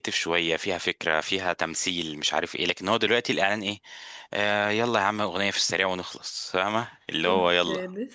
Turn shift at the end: Yes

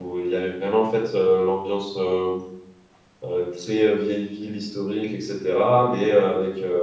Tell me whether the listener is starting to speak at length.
No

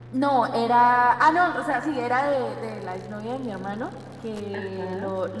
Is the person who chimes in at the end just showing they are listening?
Yes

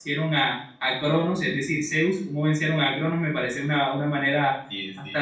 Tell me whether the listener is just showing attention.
Yes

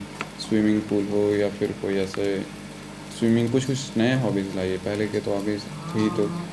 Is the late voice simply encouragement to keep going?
No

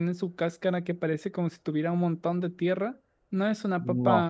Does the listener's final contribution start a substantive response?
No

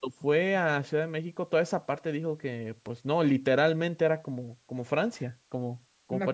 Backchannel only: No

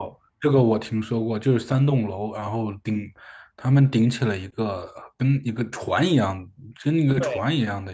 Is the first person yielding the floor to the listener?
No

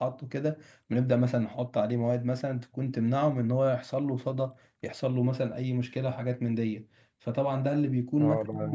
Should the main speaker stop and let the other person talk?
Yes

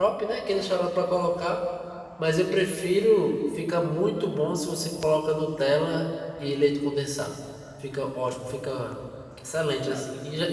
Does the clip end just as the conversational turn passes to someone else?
No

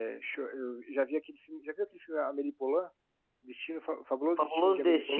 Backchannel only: No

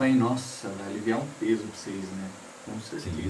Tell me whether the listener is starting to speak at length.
Yes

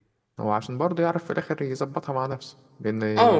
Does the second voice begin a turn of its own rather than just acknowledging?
Yes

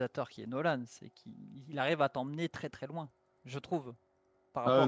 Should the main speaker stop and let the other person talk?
Yes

